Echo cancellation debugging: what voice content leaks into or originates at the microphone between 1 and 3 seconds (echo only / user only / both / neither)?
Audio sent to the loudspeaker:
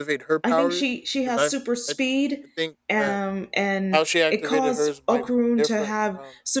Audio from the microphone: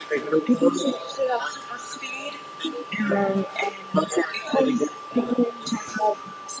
echo only